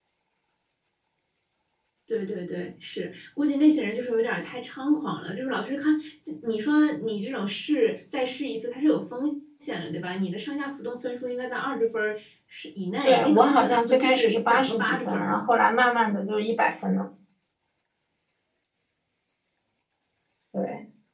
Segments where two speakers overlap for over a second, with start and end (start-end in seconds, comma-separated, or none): 13.0-15.4